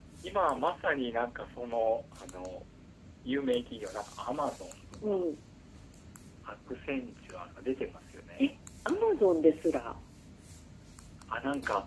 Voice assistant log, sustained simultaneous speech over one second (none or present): none